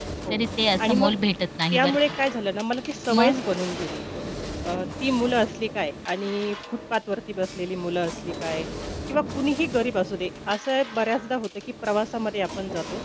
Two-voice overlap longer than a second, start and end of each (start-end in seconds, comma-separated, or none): none